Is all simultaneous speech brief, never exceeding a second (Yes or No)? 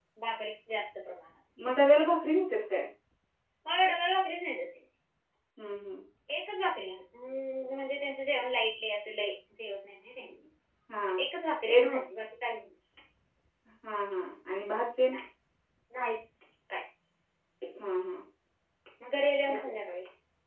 Yes